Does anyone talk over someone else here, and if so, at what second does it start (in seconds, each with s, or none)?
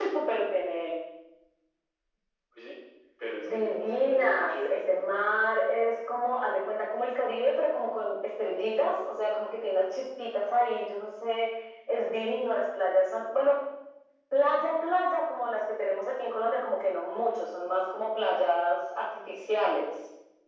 3.4 s